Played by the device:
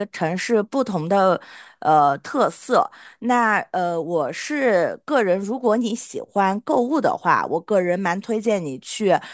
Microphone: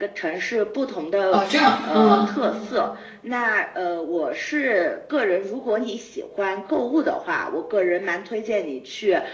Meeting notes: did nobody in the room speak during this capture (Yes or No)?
No